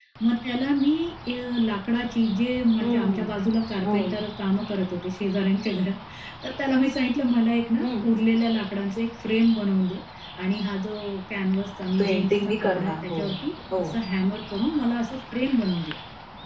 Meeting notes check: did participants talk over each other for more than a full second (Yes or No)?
Yes